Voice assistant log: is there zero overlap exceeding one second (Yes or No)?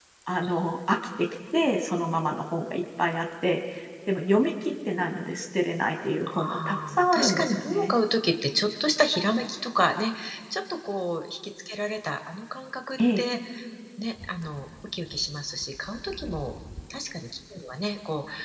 No